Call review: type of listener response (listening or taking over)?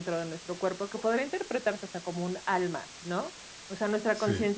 listening